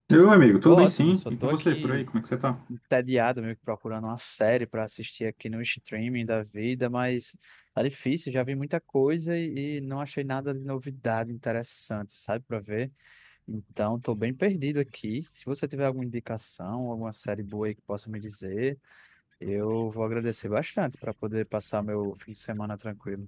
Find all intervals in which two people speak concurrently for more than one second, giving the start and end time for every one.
0.6-2.0

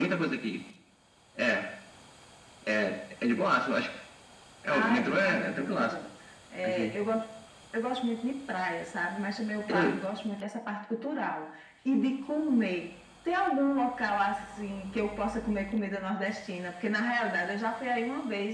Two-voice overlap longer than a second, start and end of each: 4.7-5.9

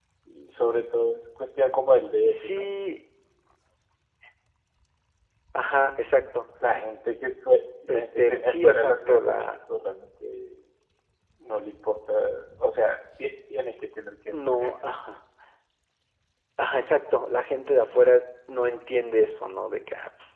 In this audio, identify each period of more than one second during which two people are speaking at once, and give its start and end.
7.9-9.6

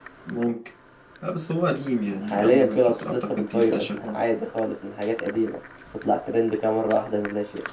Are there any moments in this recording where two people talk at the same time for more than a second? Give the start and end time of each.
2.2-4.2

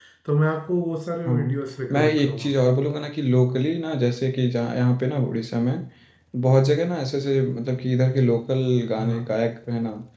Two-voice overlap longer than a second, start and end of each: 1.2-2.5

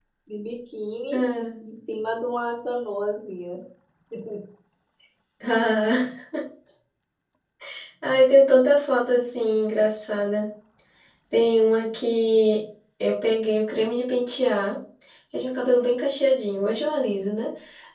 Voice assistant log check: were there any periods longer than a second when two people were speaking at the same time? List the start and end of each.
none

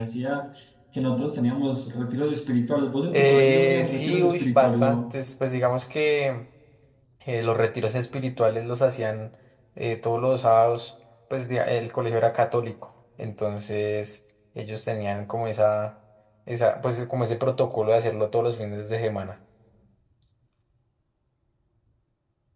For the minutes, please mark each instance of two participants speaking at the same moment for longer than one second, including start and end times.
3.1-5.1

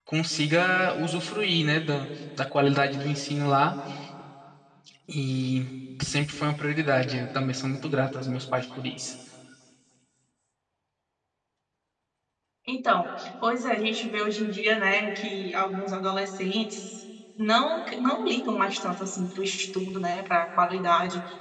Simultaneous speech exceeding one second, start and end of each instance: none

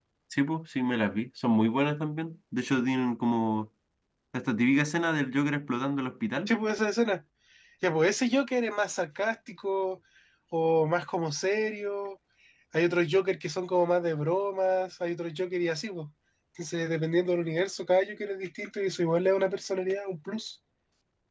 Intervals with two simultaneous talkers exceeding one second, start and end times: none

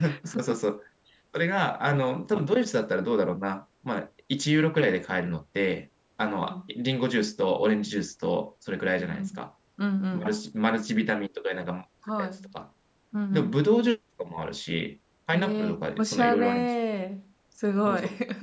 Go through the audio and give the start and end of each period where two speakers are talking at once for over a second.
15.3-16.7

